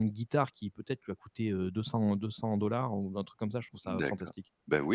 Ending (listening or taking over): taking over